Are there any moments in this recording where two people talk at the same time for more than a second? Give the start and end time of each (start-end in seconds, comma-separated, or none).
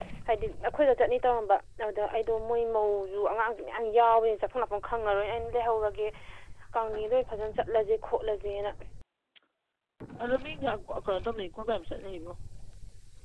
none